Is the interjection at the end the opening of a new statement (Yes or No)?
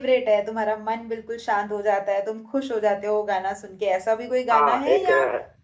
Yes